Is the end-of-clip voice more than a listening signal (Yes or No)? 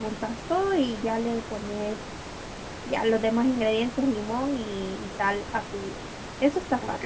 Yes